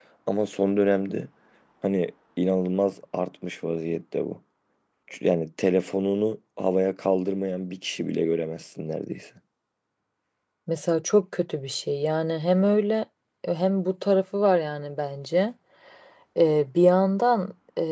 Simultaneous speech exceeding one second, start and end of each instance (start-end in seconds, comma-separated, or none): none